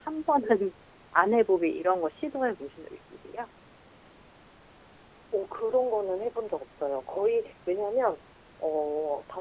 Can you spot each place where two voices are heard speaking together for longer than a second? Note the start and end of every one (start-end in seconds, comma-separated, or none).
none